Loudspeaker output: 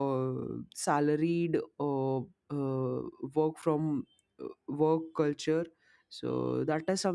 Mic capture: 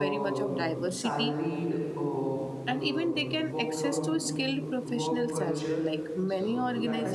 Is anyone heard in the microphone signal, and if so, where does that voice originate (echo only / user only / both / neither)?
both